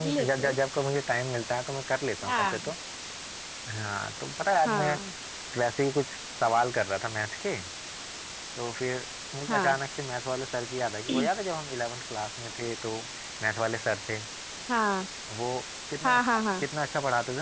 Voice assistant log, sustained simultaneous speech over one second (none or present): none